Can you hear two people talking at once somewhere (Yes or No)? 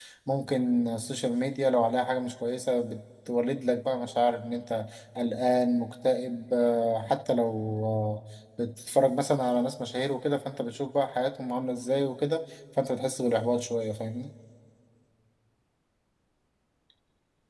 No